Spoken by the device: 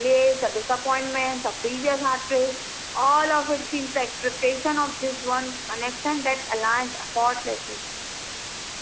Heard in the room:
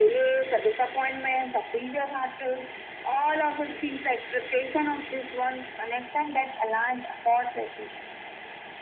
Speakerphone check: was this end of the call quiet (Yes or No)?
Yes